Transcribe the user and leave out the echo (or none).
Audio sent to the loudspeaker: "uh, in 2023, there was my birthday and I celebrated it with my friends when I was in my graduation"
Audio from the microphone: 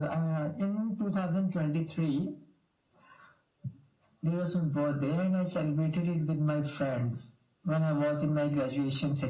none